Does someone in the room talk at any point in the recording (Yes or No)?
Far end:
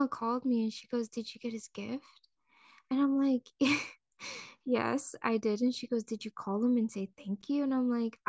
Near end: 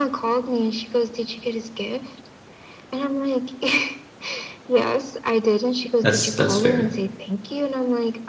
Yes